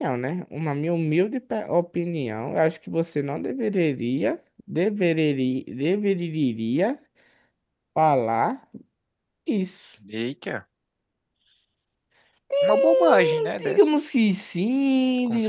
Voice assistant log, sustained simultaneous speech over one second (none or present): present